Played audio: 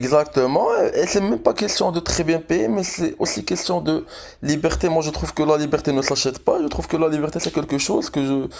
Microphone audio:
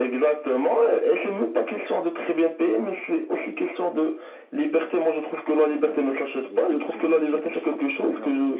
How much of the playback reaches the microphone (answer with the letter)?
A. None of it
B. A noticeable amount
B